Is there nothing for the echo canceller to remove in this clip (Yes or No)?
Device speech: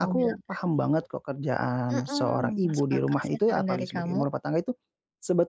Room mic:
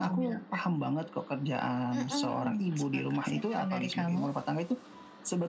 No